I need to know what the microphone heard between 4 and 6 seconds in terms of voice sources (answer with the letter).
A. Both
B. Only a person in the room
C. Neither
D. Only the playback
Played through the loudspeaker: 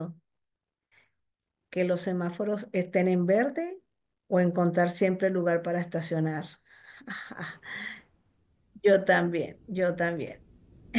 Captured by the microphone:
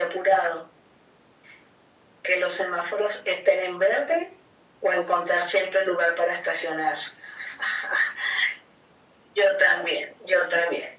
D